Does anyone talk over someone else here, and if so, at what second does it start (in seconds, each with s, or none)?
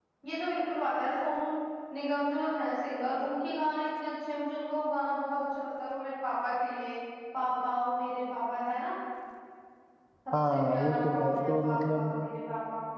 10.5 s